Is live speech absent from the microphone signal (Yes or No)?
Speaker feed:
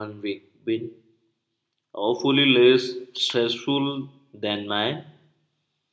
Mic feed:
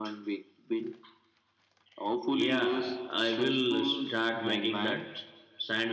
No